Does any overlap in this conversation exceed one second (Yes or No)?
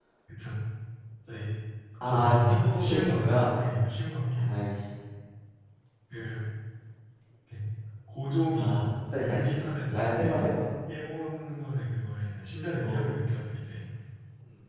Yes